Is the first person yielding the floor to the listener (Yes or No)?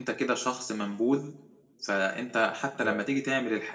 No